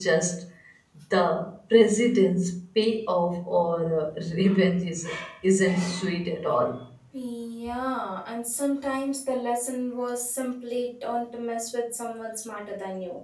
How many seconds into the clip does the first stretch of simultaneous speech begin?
none

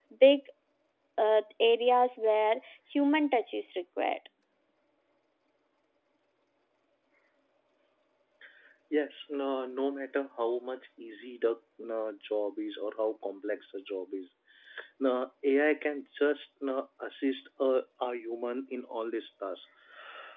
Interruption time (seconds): none

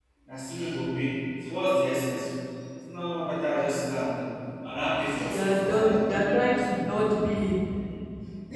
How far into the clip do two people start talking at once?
5.2 s

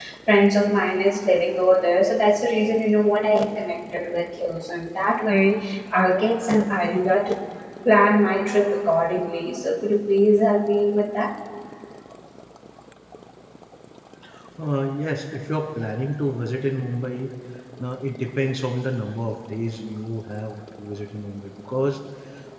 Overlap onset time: none

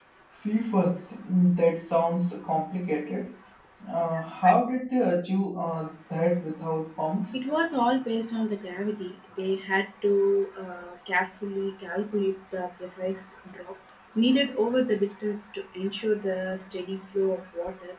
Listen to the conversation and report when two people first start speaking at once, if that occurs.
none

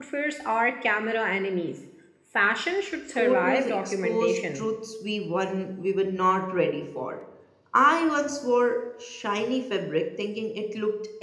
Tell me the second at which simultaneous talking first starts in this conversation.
3.2 s

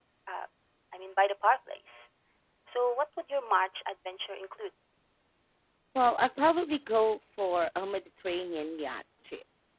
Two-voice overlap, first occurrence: none

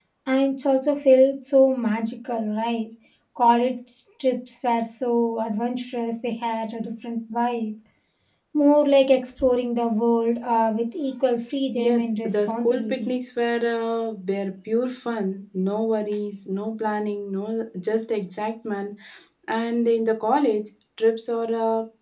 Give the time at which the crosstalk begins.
11.7 s

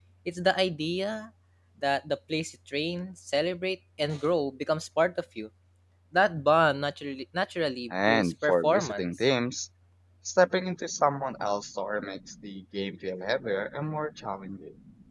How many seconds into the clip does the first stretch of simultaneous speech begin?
7.9 s

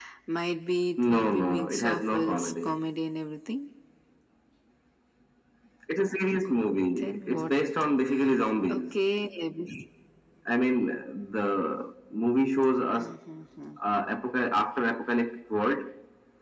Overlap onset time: 1.0 s

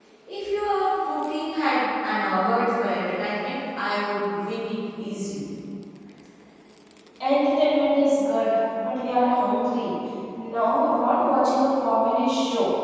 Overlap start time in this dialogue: none

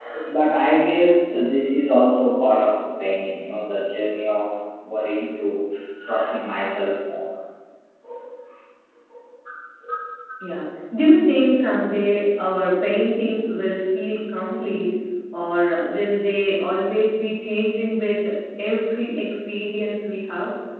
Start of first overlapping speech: none

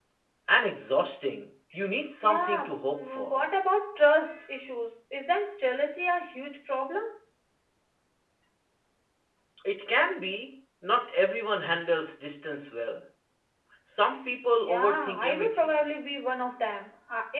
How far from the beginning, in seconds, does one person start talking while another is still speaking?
2.2 s

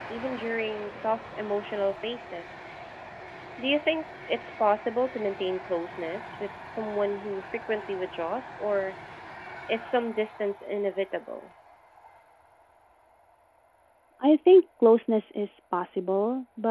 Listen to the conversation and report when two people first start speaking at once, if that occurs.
none

